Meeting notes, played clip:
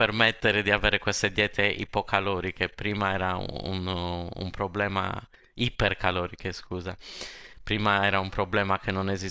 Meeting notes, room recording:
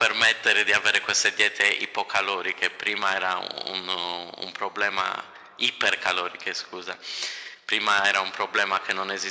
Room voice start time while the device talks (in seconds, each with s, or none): none